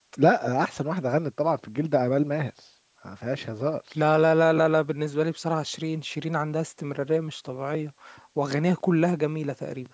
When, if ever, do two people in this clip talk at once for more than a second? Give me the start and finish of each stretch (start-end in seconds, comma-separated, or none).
none